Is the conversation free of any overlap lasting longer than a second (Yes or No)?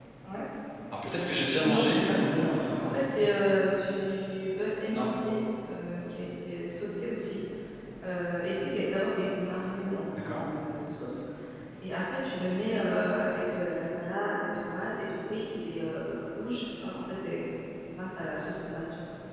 No